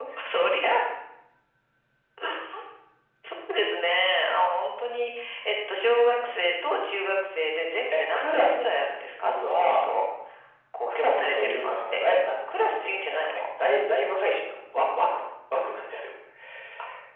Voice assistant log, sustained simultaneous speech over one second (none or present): present